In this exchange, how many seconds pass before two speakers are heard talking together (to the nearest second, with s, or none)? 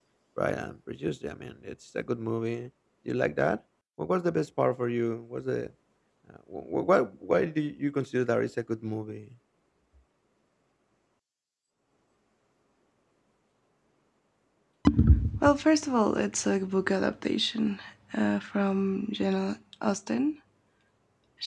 none